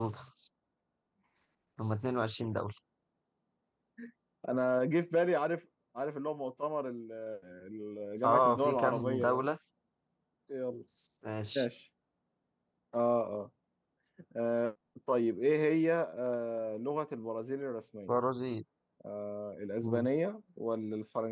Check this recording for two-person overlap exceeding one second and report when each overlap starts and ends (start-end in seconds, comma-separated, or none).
8.2-9.5